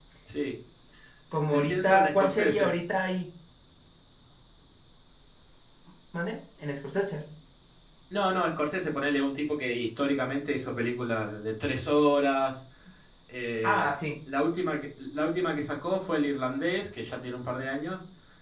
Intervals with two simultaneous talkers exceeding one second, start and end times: 1.5-2.7

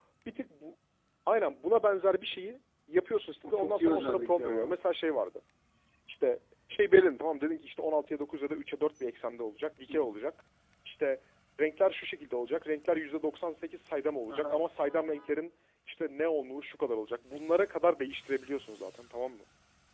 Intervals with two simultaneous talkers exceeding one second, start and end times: 3.4-4.8

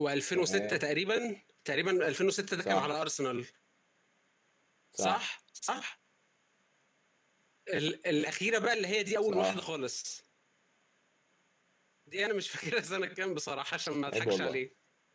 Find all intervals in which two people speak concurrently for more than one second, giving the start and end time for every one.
none

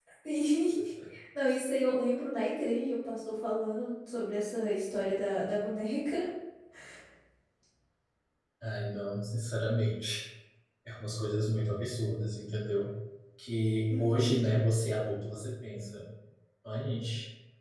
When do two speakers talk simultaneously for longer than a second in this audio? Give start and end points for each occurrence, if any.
none

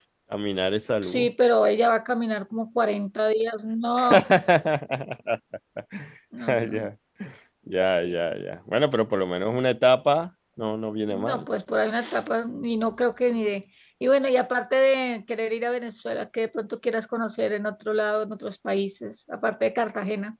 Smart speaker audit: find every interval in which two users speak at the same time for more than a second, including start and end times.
none

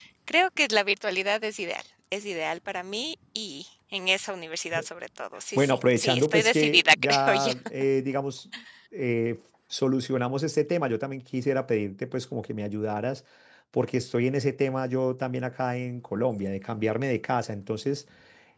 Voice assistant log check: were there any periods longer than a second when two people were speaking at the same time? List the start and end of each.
5.5-7.5

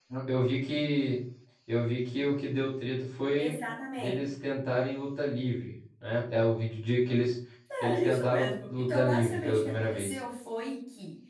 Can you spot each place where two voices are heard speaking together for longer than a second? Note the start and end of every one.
7.8-10.1

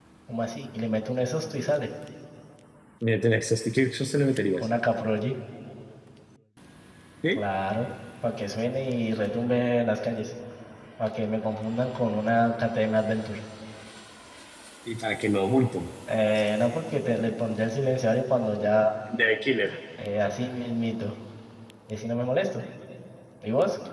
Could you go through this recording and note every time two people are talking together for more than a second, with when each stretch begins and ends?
none

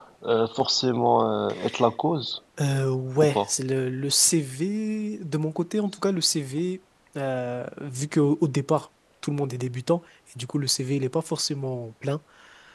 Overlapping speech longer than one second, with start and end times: none

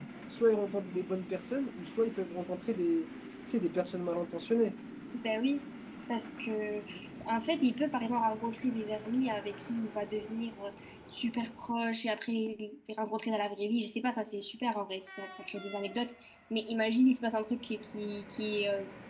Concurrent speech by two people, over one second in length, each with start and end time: none

